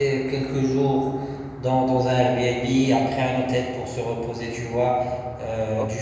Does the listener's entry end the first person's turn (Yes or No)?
No